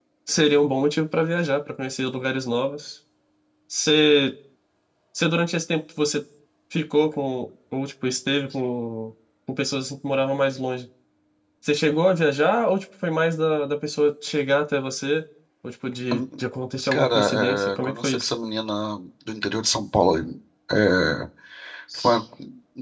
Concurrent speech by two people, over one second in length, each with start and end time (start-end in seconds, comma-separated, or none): 16.9-18.3